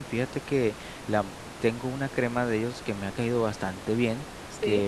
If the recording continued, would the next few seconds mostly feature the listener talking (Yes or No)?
No